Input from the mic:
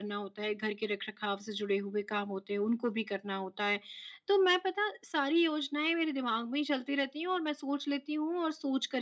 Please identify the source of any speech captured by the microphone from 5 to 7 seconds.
echo only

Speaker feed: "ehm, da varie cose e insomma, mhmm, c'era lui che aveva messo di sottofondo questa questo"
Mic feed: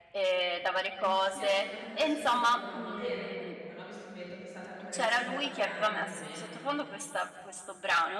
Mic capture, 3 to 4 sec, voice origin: both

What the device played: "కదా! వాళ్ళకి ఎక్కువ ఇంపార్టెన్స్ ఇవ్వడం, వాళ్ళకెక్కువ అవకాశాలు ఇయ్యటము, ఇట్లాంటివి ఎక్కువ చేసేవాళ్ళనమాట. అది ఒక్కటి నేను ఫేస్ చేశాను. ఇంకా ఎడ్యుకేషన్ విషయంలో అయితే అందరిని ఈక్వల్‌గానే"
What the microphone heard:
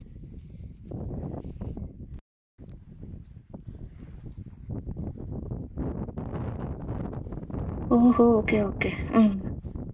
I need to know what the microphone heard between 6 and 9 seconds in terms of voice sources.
user only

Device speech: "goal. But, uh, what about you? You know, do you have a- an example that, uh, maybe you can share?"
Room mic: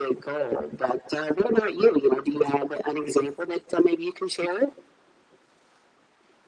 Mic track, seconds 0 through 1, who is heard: echo only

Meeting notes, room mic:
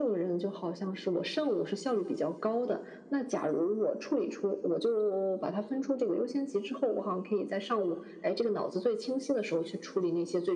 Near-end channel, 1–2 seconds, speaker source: echo only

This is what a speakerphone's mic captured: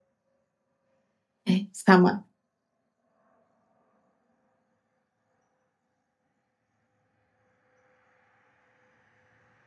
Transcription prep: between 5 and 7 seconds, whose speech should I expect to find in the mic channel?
neither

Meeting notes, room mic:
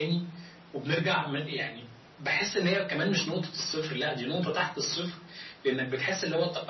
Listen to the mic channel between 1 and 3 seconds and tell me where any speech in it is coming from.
echo only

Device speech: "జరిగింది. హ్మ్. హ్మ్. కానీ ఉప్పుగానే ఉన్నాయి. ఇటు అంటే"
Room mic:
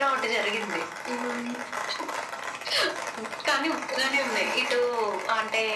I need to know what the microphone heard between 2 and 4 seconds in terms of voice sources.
echo only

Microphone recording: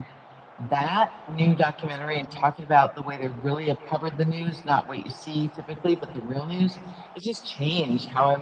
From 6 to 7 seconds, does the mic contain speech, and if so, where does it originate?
echo only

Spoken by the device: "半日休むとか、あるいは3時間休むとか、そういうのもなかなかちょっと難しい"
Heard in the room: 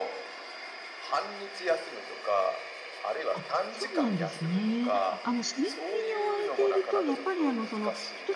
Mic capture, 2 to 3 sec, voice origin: echo only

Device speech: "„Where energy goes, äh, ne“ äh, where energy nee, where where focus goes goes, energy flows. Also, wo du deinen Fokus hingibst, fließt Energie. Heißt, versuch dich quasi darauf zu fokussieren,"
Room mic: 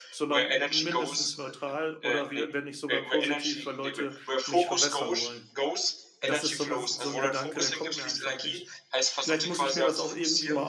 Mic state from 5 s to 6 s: both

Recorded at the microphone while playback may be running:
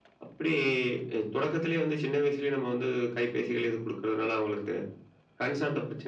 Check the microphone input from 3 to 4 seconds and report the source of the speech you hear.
echo only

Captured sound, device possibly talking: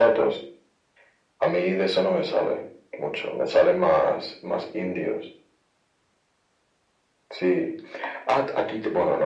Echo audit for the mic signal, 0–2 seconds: echo only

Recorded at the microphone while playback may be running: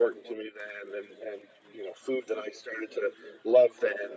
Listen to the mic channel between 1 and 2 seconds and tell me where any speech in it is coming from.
echo only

